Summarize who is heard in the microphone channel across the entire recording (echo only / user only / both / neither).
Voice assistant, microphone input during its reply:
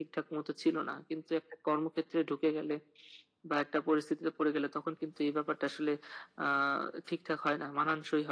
echo only